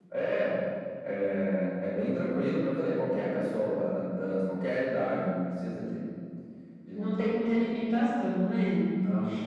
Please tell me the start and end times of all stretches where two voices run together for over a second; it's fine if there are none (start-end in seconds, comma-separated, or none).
none